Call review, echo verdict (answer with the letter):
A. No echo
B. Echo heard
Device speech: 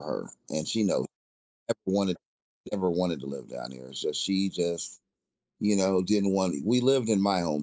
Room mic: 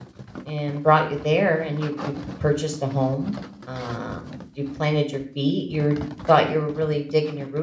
A